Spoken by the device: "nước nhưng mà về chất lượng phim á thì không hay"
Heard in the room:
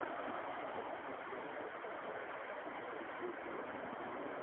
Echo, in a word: none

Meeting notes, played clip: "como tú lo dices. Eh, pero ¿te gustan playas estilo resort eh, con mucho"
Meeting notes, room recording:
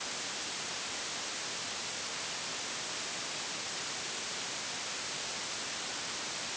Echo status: none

